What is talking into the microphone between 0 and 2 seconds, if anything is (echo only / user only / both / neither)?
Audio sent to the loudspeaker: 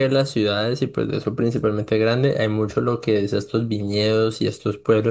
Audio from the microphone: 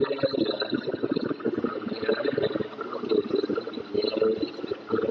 echo only